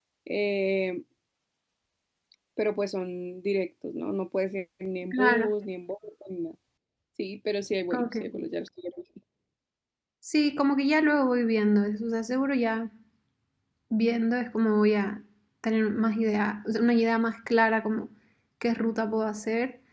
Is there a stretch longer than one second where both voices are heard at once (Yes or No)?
No